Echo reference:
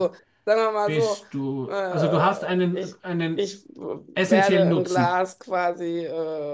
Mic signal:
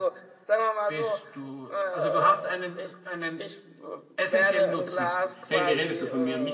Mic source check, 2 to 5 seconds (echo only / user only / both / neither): echo only